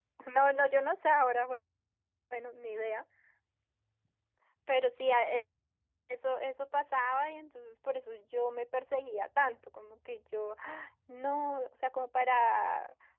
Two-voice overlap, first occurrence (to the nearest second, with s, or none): none